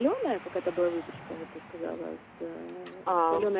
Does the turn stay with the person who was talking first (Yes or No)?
No